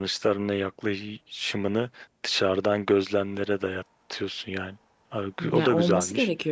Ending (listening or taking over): taking over